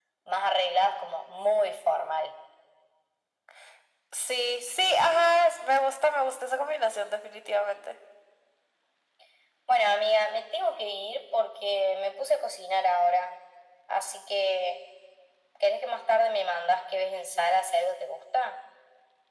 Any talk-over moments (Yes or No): No